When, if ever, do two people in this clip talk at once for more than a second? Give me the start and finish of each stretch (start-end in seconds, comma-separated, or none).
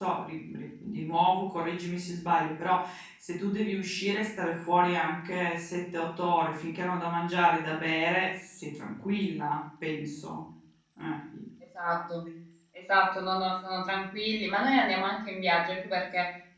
none